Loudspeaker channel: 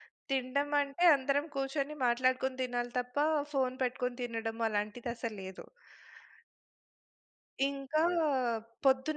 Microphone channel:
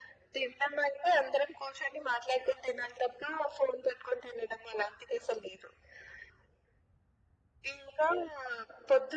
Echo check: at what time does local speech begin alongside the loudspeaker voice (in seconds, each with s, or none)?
none